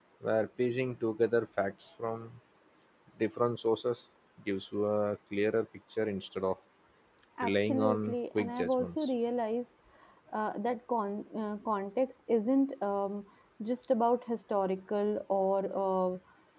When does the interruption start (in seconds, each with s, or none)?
7.4 s